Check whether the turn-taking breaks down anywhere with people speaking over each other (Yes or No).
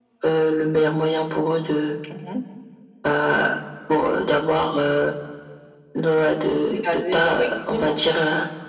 Yes